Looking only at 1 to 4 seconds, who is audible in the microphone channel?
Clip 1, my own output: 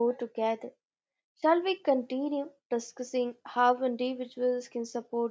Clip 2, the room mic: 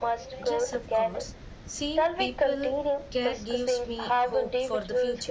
both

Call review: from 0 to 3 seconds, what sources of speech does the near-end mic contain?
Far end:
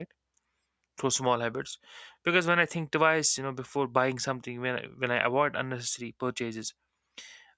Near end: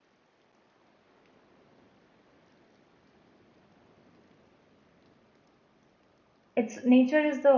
neither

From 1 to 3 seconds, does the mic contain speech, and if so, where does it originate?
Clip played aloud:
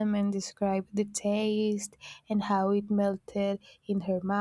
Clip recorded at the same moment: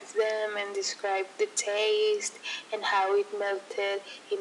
echo only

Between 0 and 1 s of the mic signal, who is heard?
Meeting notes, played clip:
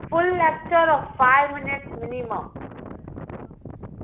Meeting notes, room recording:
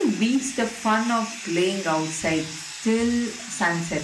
user only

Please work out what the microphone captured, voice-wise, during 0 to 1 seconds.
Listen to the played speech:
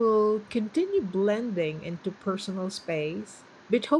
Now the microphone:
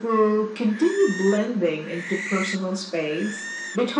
echo only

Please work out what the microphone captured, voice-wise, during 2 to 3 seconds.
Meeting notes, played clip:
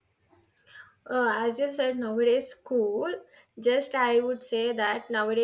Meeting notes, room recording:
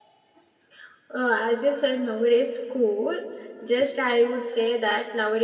echo only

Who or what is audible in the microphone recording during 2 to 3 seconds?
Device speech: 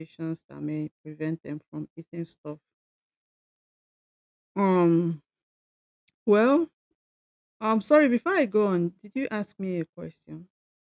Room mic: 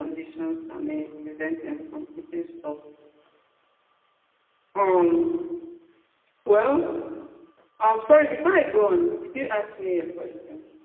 echo only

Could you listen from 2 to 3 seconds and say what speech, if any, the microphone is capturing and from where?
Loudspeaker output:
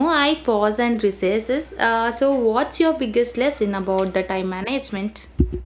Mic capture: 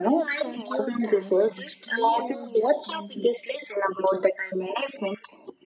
both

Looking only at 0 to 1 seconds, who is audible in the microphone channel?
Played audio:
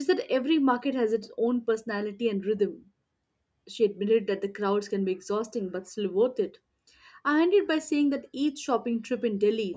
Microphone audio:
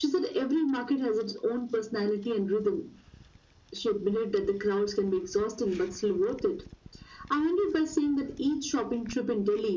echo only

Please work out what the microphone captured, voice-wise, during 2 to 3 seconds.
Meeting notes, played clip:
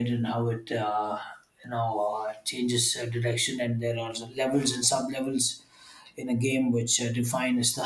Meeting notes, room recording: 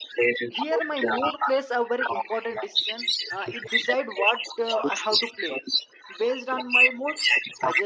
both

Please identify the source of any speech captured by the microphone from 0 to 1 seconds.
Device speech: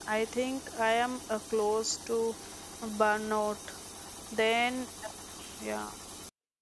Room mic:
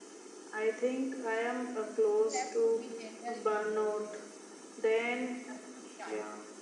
echo only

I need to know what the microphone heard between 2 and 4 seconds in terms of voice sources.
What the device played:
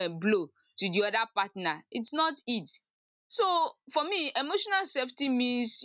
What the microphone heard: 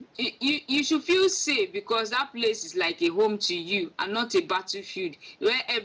user only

